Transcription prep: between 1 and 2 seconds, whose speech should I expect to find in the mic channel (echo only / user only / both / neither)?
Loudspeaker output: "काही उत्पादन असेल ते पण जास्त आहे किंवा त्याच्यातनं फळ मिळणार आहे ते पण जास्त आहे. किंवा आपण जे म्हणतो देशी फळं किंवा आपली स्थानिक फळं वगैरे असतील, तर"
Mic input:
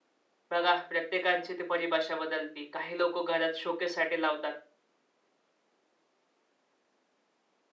user only